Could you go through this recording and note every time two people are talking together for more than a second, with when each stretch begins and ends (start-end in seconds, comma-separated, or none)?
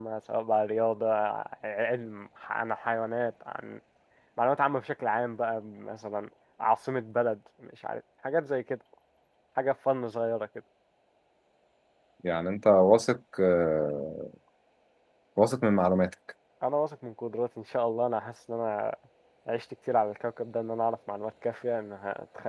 none